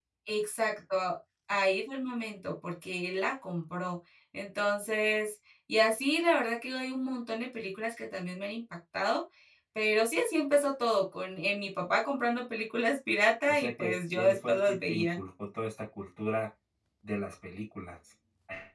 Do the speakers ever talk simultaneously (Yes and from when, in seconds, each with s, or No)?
Yes, from 13.5 s